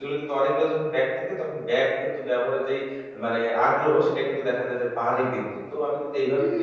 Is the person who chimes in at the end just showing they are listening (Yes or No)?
No